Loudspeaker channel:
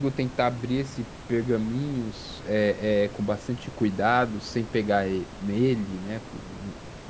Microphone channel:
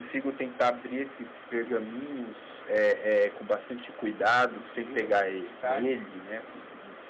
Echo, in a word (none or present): present